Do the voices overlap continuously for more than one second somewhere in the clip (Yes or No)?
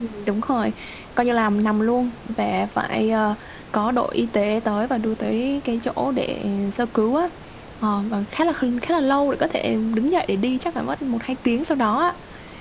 No